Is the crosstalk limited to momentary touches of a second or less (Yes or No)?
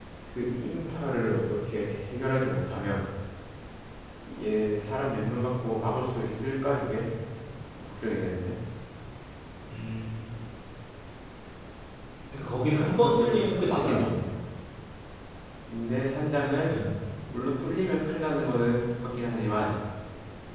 No